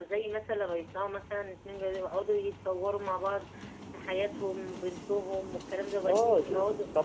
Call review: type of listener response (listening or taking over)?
taking over